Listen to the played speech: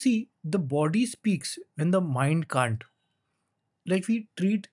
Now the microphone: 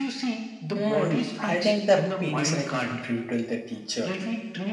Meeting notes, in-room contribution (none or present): present